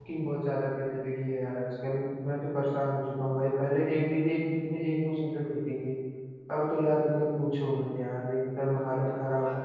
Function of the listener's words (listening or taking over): taking over